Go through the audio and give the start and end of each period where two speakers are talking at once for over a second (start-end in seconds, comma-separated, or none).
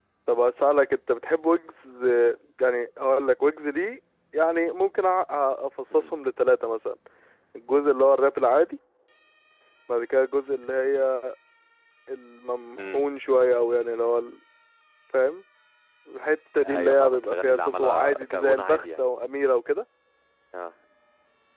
16.6-19.0